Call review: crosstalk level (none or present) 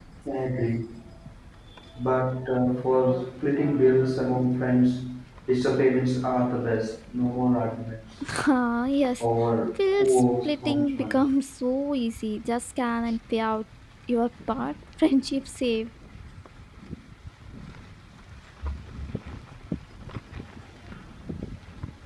present